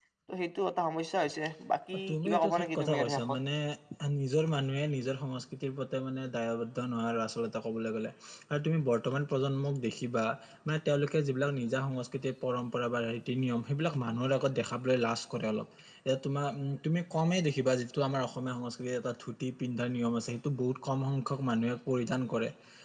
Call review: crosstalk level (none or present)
present